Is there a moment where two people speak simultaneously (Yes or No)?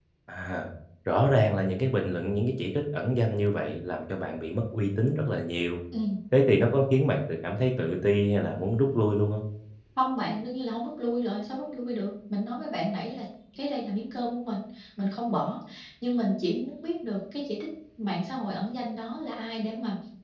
No